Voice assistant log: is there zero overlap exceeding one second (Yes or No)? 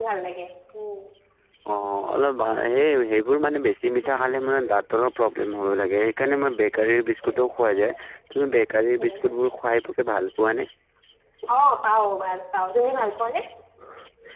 Yes